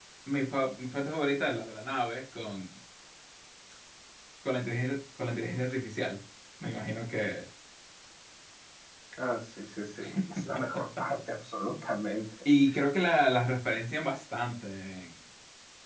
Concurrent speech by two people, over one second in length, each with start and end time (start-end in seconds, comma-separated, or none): none